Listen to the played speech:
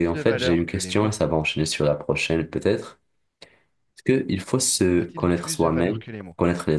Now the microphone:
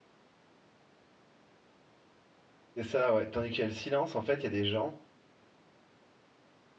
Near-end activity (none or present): present